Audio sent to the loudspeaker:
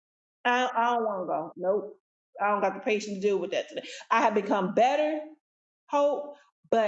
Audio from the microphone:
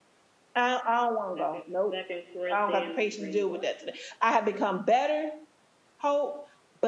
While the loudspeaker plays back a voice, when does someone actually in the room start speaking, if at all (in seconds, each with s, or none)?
1.4 s